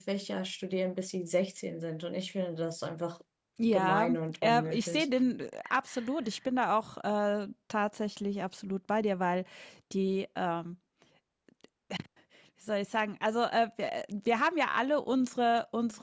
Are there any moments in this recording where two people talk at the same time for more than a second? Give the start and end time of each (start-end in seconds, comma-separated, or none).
3.7-5.1